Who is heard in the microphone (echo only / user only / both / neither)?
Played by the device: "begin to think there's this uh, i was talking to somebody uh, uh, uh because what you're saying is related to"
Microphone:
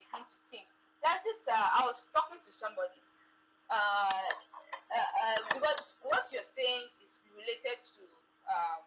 echo only